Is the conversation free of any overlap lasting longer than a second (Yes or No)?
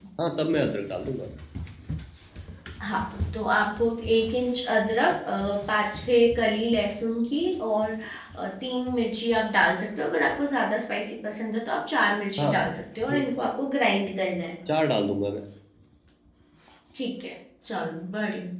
Yes